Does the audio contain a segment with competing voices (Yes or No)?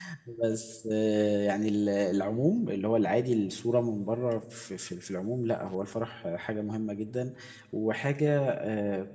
No